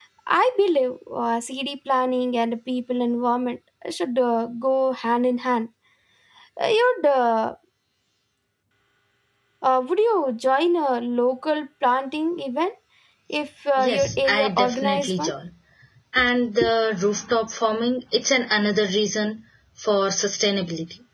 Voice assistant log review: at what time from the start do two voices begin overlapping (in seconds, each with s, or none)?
13.8 s